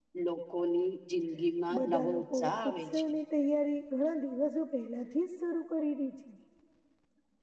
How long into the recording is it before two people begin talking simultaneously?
1.7 s

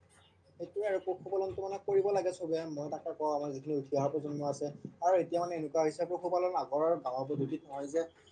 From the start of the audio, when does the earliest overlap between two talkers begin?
none

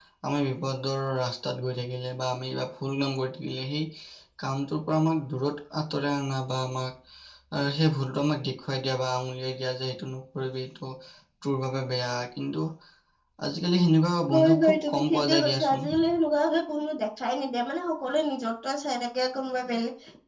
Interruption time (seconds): 14.3 s

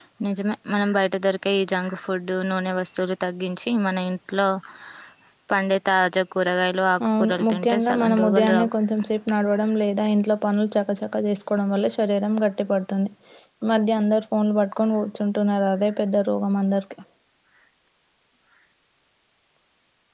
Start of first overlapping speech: 7.0 s

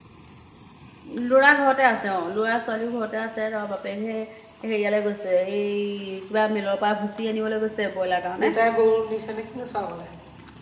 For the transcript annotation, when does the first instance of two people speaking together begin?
none

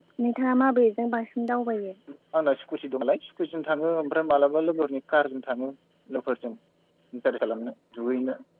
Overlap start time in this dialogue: none

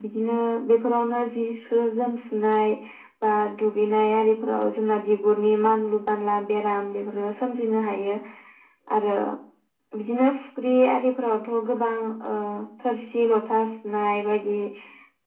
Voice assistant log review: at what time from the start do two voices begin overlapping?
none

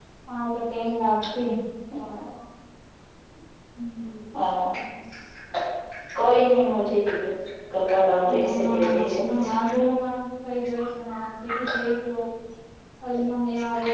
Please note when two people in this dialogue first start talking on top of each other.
8.3 s

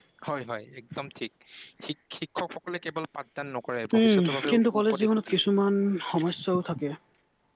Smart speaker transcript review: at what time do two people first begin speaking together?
3.9 s

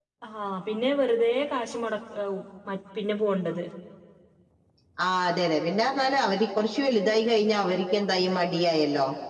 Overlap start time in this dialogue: none

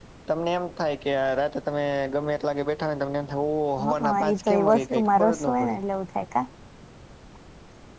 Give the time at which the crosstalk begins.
3.8 s

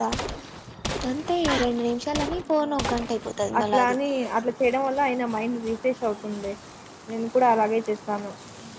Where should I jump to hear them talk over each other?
2.6 s

